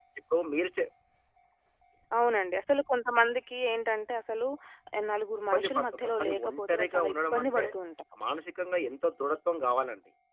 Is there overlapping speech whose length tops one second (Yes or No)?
Yes